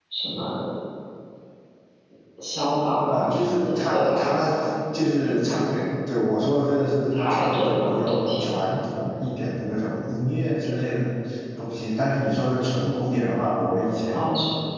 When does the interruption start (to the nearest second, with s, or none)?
3 s